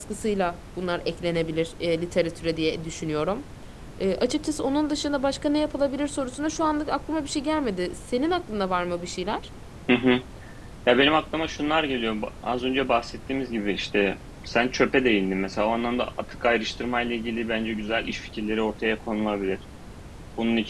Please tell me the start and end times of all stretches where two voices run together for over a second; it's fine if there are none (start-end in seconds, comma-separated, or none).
none